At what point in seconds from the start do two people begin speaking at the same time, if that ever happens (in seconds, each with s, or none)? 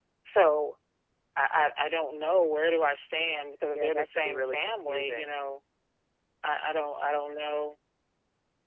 3.7 s